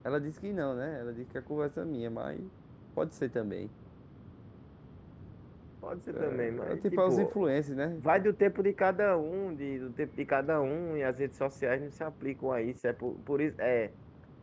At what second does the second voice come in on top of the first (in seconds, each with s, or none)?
6.1 s